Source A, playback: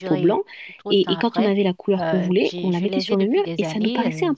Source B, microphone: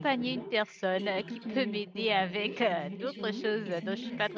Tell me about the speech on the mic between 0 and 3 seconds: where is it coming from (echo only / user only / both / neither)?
both